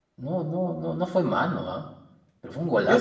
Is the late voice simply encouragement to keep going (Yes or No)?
No